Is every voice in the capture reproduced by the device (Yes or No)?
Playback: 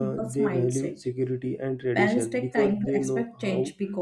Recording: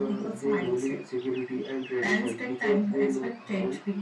Yes